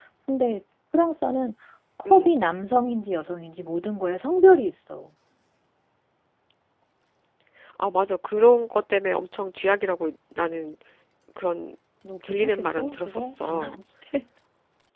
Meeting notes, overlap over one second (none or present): present